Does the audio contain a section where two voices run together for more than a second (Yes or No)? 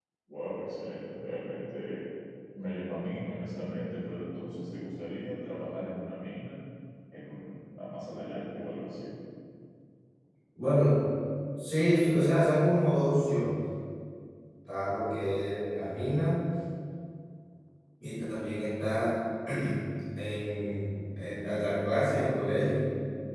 No